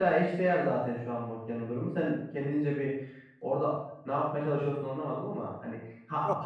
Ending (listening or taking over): listening